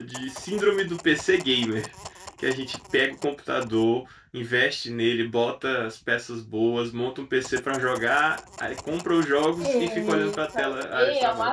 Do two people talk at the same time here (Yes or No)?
Yes